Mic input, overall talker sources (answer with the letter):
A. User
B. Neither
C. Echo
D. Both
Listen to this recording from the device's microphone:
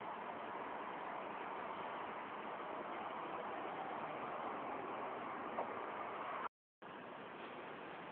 B